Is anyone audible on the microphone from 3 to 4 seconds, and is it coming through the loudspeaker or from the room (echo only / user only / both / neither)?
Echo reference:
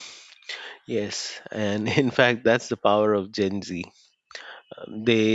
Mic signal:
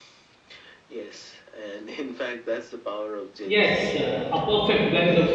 both